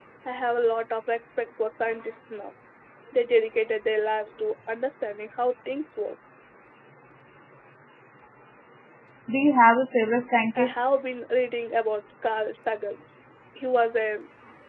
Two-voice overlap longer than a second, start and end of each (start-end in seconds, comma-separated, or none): none